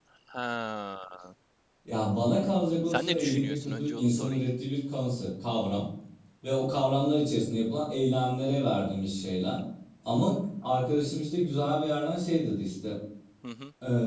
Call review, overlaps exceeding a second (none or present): present